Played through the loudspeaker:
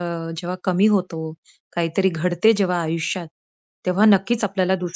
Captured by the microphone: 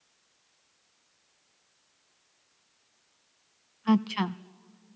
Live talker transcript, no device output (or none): अच्छा.